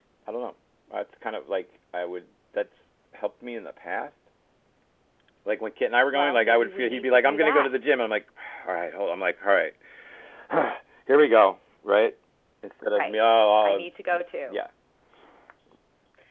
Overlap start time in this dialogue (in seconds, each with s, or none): 6.1 s